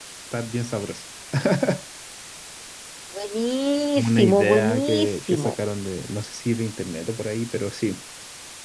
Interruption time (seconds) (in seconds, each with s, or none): 4.0 s